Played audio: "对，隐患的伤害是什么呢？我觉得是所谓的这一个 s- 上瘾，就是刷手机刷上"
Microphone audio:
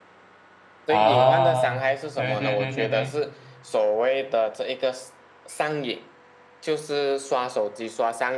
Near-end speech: present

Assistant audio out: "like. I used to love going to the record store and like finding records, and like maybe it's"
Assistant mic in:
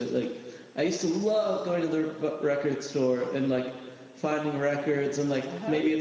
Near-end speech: present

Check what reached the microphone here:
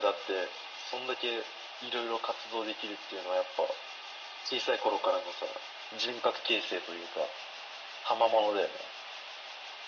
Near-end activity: none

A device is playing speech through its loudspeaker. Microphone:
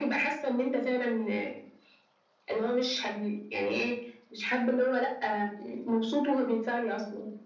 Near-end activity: none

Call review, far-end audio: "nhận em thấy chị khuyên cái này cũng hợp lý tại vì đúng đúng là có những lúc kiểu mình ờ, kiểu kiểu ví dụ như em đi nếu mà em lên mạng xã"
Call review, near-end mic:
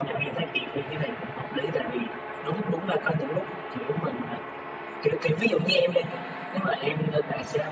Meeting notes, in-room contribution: none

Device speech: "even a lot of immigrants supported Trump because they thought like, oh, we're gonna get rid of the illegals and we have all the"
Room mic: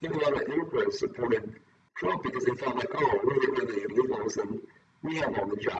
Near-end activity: none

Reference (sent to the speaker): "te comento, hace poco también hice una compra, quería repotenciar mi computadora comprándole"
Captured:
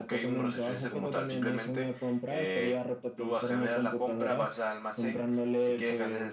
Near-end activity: present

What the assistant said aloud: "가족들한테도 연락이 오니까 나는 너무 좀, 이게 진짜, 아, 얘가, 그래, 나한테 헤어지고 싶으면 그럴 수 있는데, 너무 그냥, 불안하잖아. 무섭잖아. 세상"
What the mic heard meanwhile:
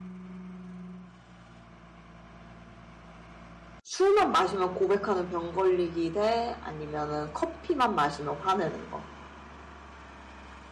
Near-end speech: present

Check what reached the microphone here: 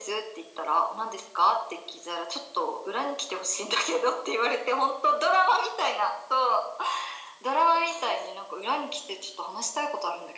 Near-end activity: none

